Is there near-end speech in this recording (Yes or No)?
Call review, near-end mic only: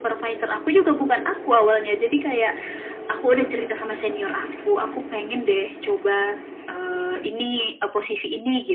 No